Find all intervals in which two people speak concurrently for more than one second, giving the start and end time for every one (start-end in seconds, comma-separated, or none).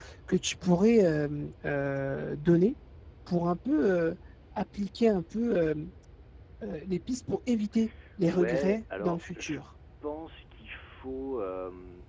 8.3-9.6